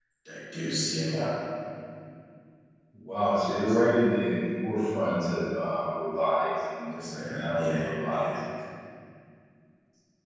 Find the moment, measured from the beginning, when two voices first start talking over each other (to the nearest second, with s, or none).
7 s